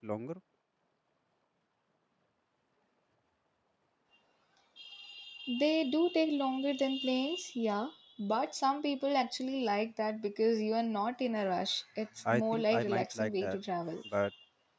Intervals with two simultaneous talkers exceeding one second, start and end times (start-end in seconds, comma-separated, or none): 12.3-13.6